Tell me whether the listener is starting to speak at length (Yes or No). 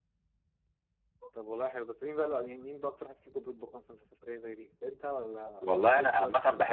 Yes